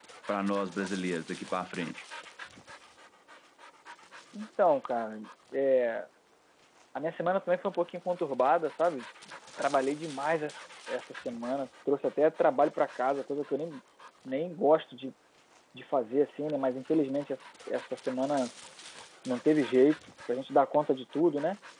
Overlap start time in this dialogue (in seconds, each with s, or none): none